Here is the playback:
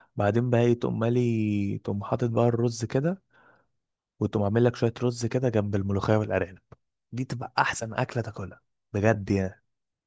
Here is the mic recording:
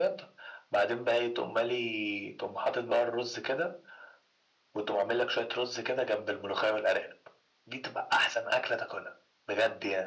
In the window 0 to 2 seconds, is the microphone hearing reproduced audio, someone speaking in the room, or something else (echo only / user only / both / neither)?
echo only